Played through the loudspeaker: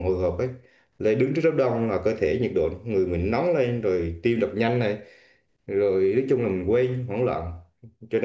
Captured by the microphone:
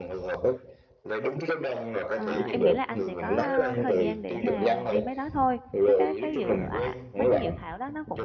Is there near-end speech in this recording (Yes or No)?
Yes